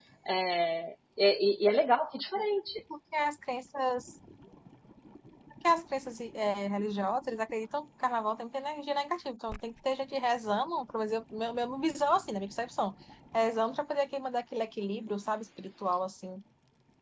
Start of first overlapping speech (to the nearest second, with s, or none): none